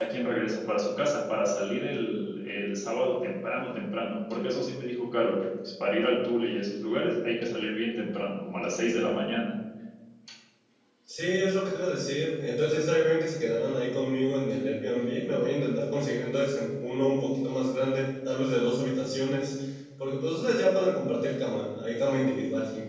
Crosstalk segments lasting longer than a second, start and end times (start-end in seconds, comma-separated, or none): none